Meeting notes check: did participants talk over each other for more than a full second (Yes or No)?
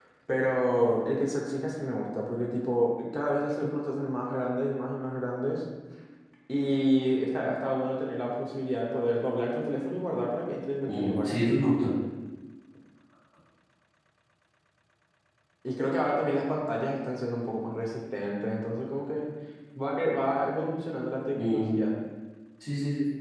No